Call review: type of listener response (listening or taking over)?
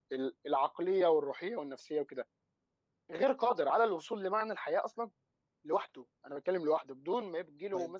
taking over